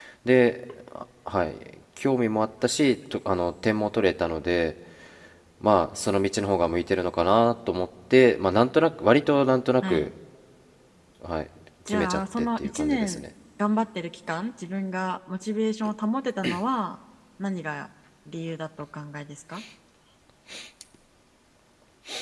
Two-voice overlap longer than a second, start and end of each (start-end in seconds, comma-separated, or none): 11.9-13.2